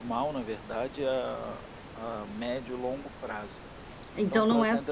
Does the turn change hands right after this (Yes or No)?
Yes